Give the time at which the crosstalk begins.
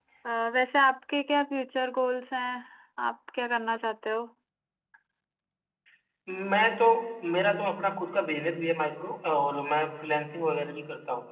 none

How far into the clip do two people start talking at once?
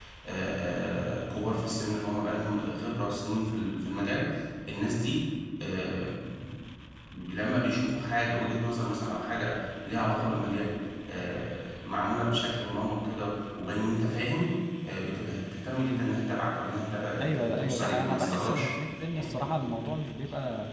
17.2 s

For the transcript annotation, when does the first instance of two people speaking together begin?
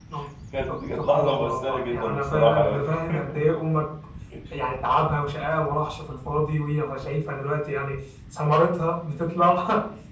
0.9 s

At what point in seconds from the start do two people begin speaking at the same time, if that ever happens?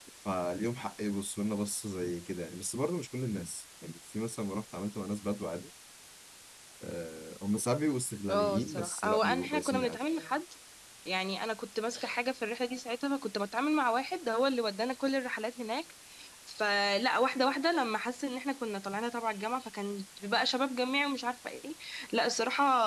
8.3 s

